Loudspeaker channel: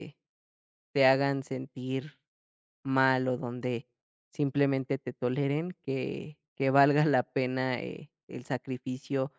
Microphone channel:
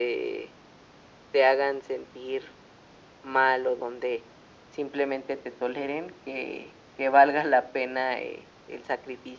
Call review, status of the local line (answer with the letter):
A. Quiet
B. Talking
A